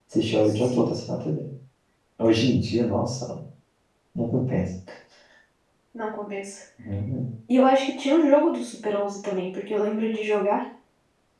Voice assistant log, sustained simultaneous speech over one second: none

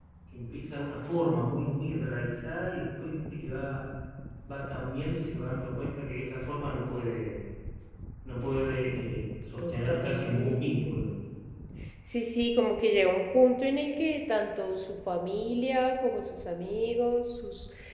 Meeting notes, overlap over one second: present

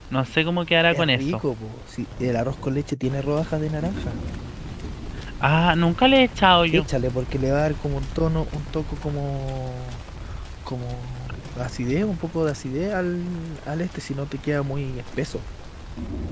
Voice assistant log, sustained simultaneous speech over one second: none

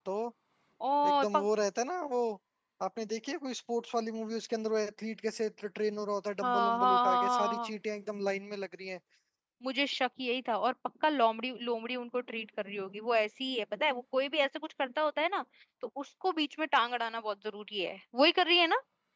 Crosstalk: present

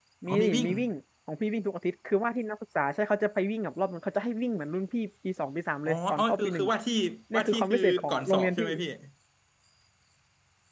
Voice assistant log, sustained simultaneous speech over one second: present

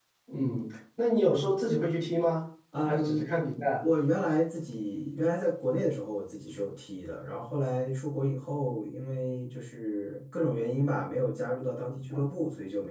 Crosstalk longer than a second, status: none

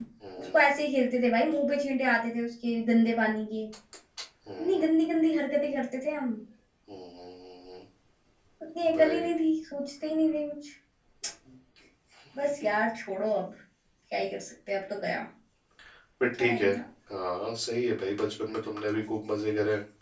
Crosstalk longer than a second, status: none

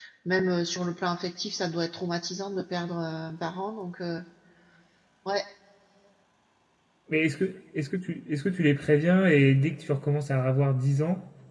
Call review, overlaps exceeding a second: none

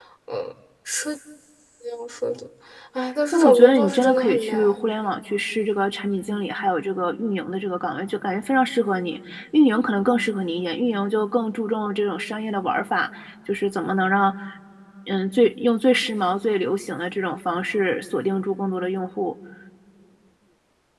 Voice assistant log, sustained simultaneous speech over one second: present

